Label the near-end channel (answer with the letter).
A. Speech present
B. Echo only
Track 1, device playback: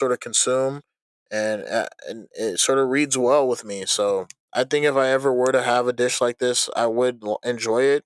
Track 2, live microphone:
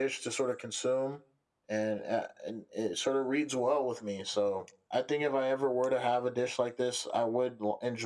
B